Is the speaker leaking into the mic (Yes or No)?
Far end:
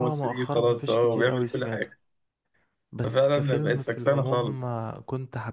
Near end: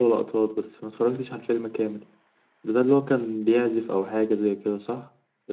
No